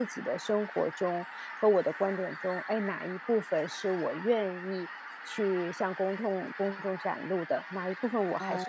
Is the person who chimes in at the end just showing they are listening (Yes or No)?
Yes